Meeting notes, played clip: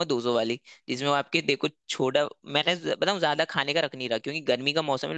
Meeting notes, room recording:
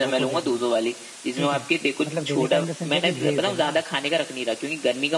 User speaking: Yes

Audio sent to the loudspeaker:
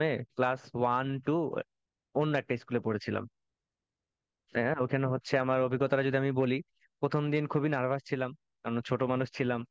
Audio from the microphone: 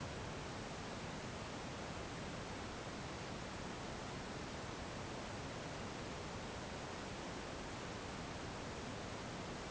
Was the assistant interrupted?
No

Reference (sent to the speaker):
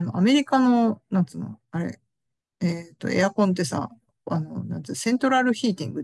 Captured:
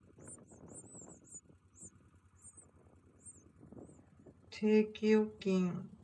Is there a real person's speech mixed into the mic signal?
Yes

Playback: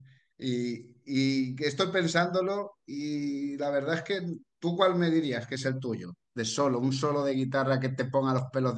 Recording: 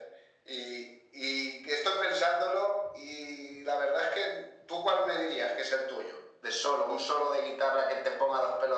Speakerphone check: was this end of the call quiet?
Yes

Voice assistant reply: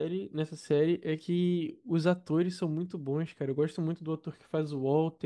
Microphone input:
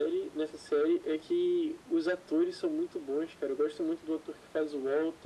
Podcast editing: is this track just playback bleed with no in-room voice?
Yes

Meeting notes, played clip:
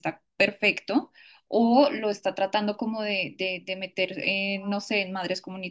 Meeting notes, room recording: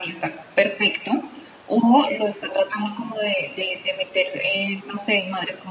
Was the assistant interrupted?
No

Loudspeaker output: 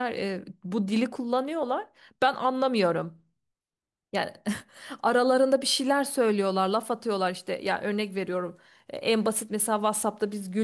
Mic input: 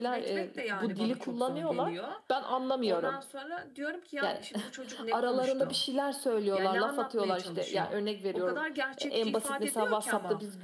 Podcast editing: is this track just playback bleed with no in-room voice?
No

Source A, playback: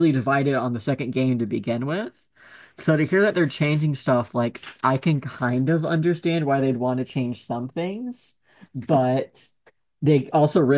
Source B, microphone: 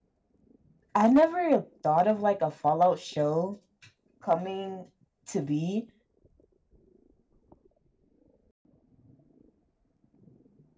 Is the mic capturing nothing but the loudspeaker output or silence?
No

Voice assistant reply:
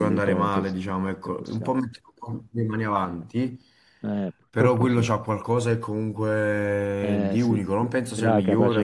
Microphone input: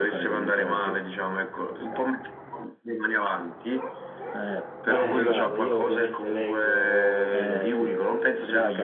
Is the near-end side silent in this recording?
No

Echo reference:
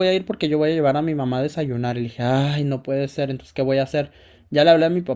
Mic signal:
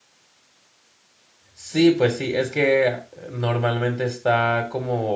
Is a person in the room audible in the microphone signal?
Yes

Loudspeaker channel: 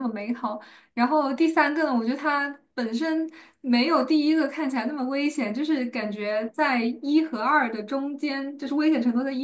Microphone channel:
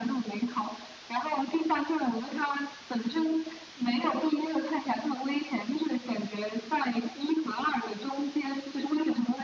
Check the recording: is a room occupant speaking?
No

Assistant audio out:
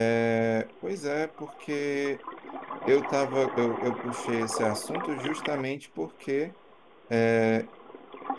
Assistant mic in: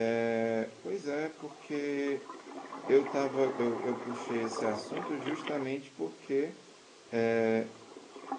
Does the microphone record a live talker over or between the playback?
No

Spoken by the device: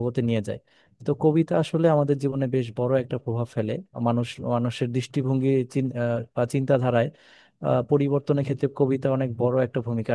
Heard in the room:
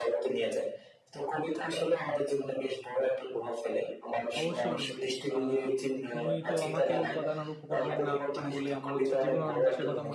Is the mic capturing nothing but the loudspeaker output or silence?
No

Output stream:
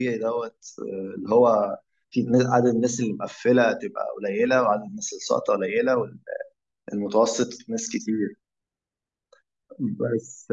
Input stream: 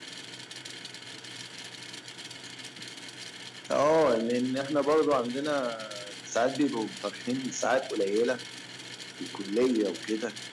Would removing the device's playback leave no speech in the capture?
No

